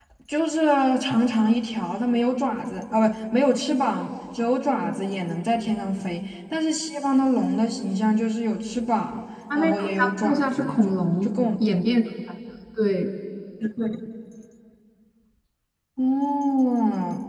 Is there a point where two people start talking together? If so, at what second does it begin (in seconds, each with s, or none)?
9.5 s